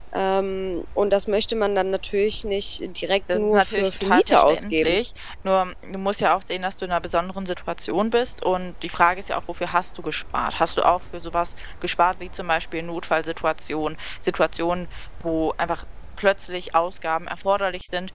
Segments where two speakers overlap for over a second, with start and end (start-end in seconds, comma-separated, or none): 3.3-5.0